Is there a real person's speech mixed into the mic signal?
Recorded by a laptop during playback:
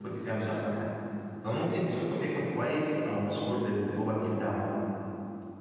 Yes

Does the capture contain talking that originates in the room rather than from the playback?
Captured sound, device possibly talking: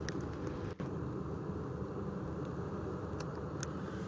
No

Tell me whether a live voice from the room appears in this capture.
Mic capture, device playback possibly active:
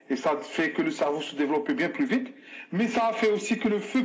No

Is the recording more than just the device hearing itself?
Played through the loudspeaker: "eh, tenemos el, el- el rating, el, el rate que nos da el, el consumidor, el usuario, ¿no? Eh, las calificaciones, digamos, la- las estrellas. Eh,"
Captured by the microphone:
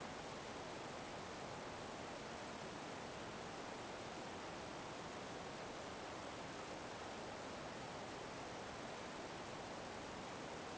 No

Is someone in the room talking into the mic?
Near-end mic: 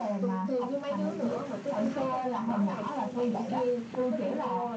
No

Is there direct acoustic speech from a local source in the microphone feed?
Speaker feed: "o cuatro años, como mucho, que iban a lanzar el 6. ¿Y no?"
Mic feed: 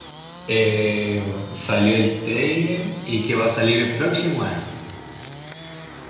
Yes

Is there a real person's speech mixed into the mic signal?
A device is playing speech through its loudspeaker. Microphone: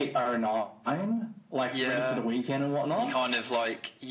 No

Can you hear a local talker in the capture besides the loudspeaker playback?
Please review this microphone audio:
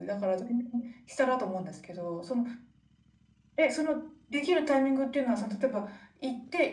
No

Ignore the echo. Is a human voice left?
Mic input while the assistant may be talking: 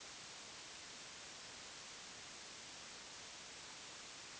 No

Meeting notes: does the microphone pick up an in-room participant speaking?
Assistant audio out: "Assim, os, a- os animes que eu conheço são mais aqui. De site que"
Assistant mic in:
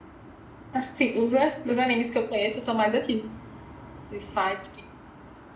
No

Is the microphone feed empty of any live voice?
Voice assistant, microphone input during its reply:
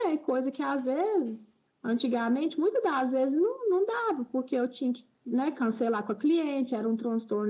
Yes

